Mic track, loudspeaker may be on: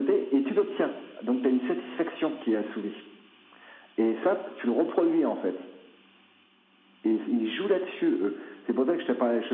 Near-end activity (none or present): none